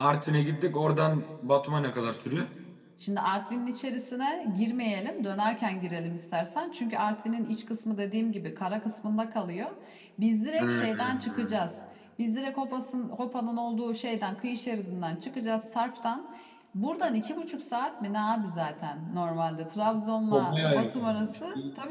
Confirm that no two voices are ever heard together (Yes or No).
No